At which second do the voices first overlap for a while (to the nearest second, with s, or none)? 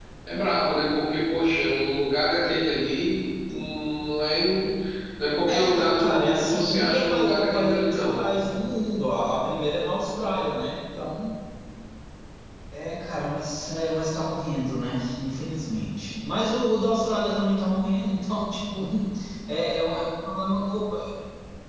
5 s